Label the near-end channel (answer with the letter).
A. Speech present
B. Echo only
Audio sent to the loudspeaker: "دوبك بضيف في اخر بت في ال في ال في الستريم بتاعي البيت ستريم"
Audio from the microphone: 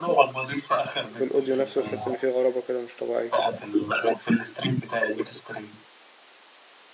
A